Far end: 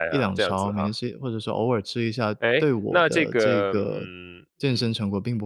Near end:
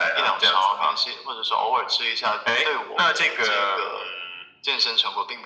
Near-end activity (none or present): none